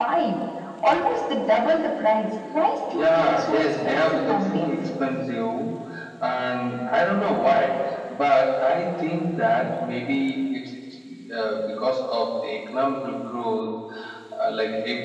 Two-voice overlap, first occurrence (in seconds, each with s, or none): 2.9 s